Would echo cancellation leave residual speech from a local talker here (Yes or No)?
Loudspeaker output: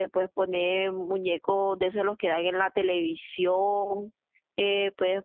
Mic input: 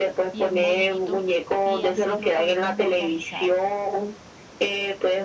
Yes